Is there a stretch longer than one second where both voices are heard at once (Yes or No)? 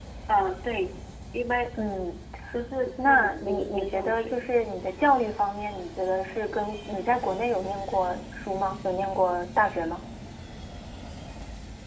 Yes